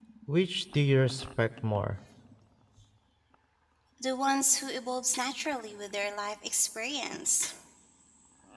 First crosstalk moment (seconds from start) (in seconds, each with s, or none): none